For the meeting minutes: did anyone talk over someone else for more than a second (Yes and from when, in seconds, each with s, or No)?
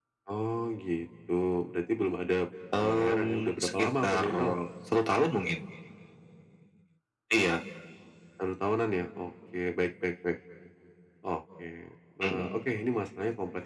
Yes, from 2.7 s